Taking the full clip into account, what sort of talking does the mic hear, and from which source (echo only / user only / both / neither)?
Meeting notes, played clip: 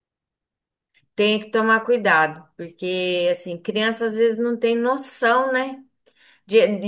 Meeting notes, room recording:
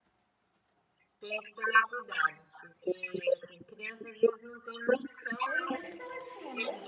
both